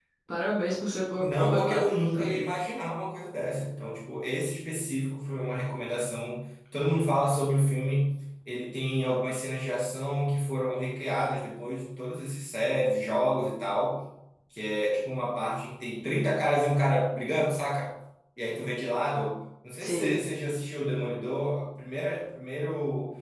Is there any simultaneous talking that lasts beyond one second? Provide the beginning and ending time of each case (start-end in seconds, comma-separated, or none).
1.2-2.5